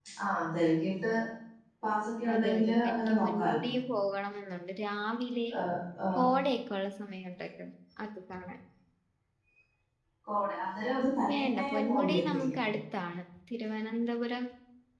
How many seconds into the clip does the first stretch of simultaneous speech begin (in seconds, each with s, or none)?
2.3 s